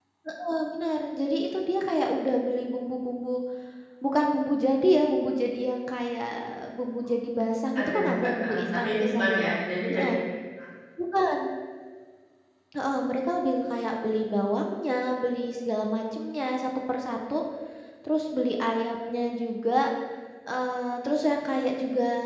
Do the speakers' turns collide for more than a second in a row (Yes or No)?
Yes